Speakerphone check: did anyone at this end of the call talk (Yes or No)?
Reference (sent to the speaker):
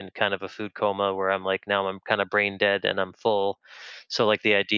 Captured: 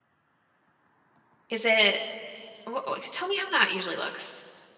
Yes